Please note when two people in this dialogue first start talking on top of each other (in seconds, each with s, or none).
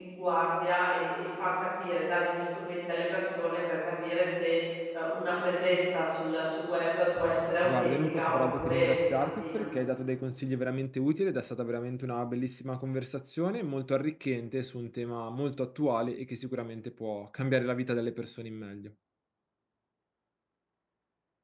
7.6 s